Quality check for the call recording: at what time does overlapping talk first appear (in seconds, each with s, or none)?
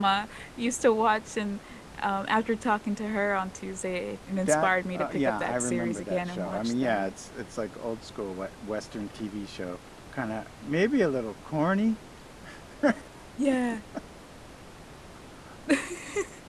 4.3 s